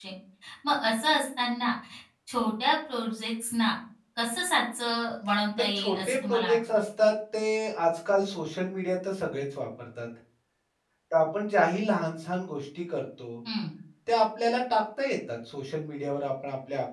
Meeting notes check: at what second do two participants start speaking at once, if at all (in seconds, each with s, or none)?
5.6 s